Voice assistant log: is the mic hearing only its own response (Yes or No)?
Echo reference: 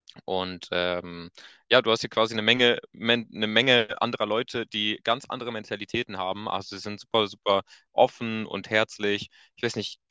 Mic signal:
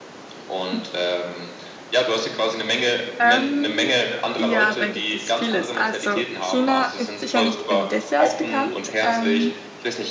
No